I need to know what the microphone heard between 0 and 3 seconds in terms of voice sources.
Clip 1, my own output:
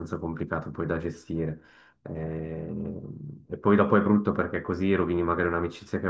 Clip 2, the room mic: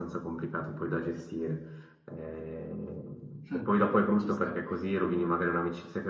echo only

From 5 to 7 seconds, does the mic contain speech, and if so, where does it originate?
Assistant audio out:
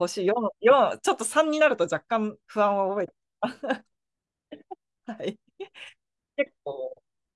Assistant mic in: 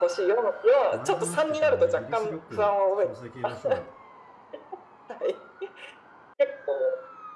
echo only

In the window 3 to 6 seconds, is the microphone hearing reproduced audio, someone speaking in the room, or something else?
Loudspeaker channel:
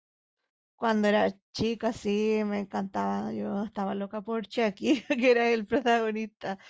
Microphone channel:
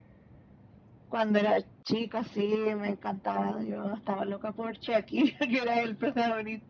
echo only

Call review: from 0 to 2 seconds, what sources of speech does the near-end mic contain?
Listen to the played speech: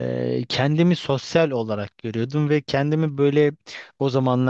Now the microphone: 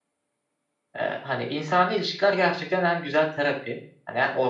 user only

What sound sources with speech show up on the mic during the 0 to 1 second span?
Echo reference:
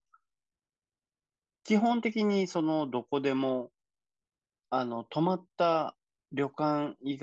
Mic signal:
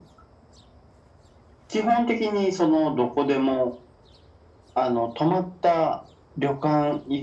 neither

